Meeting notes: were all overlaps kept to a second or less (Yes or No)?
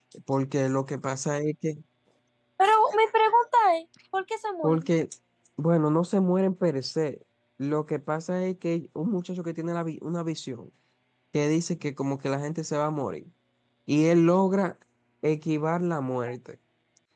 Yes